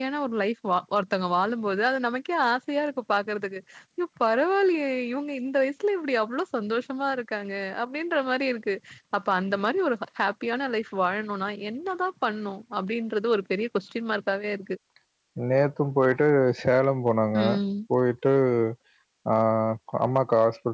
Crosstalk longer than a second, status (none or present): none